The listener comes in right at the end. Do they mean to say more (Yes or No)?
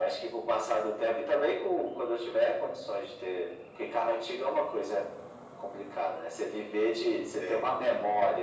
No